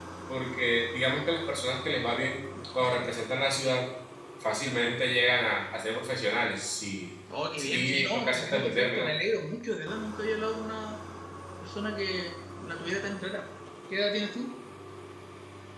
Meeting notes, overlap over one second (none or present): present